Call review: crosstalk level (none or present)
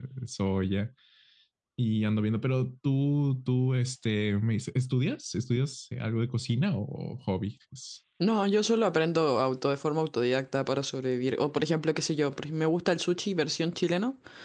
none